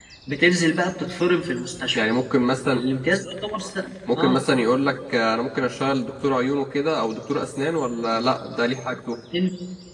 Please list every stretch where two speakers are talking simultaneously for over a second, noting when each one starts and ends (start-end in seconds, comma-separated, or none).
none